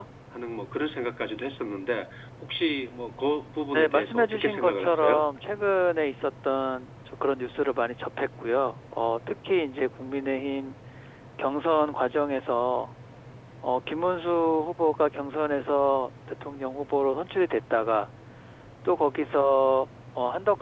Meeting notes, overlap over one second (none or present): present